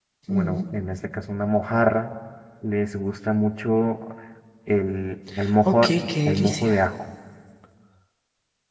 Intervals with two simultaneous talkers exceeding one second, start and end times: none

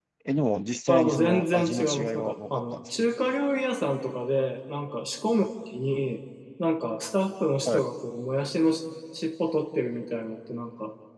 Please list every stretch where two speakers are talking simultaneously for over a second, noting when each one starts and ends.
0.9-2.8

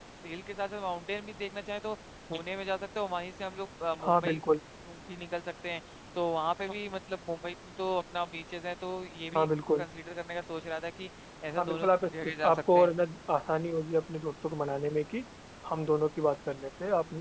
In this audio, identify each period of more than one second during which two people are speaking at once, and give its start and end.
11.6-12.9

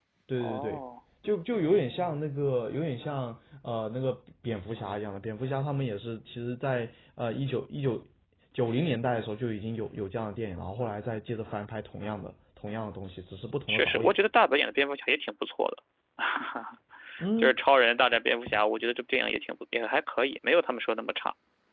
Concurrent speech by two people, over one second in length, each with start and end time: none

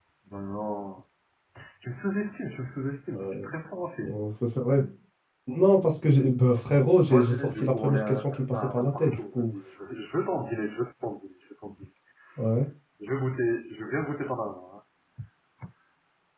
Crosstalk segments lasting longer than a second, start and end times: 7.0-9.5

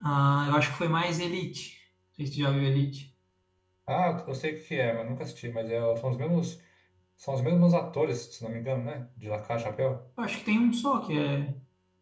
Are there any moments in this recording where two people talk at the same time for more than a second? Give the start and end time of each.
none

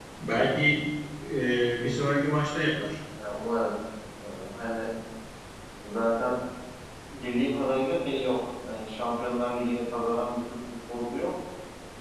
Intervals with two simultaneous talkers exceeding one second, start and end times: none

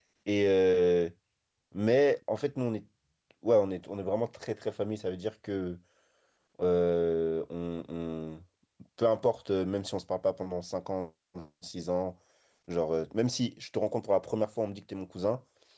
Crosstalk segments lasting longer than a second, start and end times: none

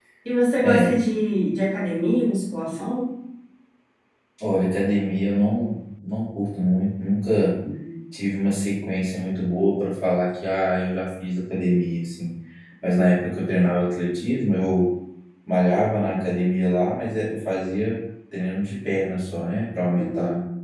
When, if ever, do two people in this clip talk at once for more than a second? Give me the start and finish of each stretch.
none

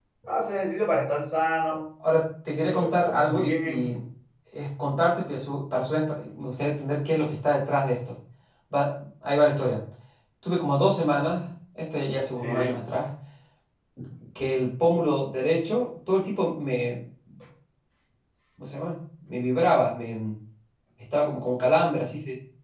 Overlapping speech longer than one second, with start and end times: 2.6-3.9

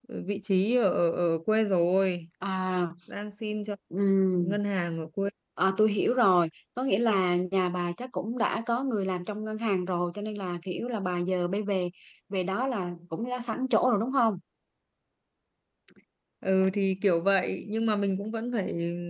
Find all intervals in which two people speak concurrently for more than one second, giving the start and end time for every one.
none

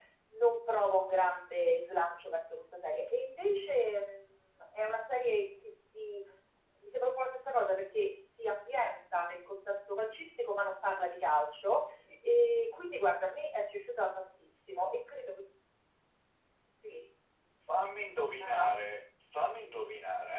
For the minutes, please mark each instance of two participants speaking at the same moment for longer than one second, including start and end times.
none

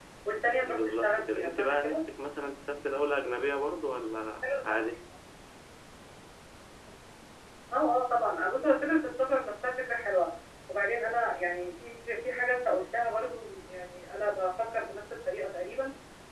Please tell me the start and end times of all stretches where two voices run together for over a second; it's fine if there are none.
0.6-2.0

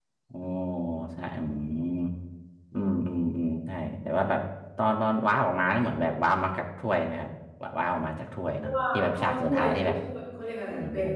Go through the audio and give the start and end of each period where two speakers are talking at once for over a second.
8.6-10.0

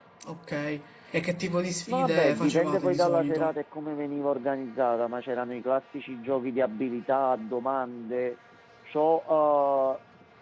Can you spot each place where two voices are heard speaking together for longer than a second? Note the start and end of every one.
1.9-3.5

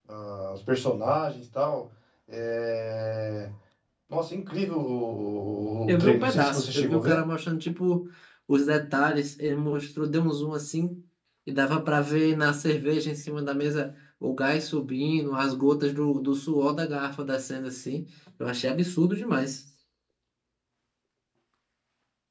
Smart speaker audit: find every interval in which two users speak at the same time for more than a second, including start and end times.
5.9-7.2

